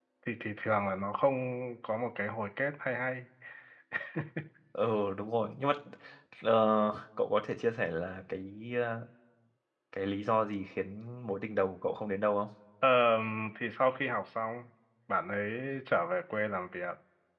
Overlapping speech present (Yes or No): No